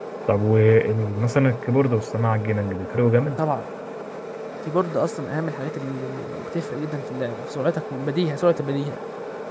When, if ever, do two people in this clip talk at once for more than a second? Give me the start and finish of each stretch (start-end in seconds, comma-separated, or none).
none